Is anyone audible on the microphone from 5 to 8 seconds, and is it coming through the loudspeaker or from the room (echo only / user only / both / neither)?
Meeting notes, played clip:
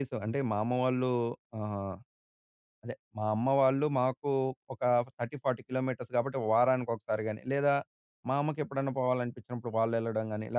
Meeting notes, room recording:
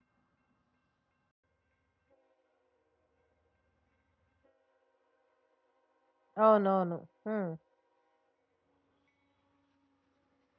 user only